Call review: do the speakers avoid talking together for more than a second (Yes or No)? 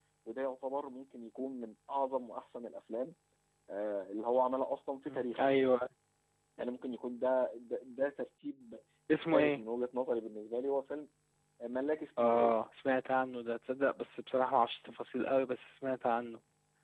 Yes